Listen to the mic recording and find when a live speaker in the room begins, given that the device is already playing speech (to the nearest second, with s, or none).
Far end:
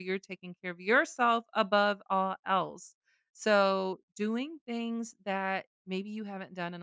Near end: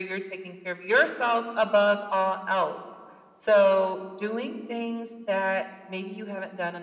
none